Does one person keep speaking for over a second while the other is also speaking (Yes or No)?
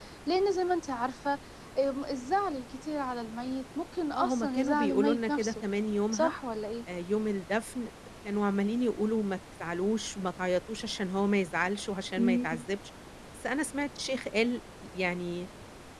Yes